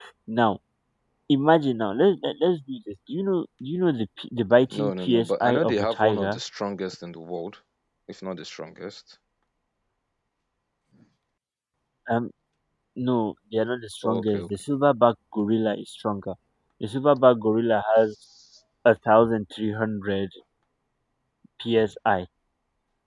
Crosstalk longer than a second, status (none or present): present